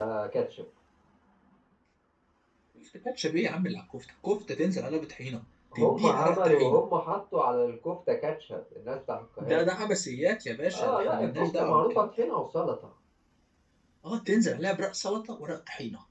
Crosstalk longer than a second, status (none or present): present